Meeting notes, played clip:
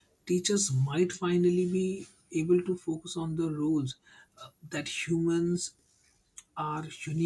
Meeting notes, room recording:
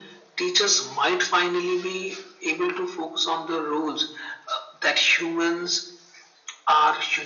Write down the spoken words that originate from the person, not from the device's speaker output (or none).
none